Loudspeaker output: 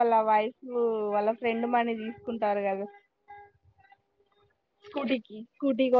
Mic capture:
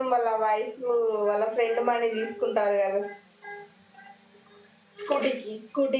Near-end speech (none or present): none